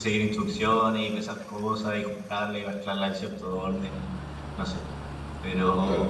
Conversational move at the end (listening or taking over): listening